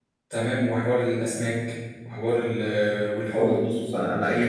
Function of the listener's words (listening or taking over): taking over